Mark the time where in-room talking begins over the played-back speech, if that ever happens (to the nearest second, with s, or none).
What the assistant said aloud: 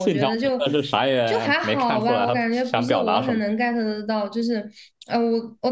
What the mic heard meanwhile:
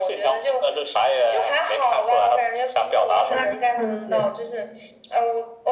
3 s